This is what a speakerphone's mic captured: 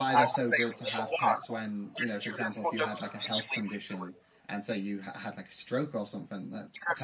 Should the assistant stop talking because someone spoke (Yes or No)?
Yes